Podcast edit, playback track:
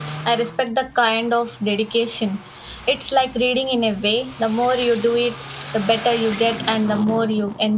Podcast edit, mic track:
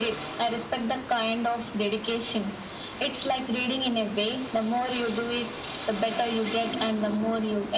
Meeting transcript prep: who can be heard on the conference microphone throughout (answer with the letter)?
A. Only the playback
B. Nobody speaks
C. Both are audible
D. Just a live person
A